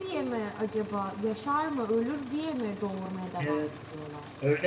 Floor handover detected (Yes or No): Yes